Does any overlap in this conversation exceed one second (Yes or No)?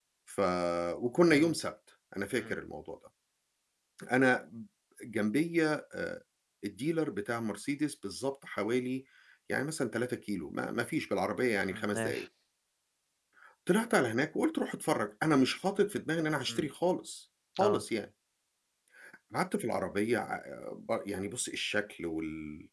No